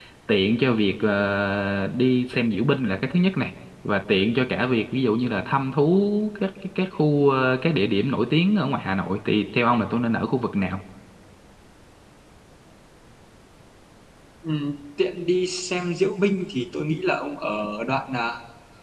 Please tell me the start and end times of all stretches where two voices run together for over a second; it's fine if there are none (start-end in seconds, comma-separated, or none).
none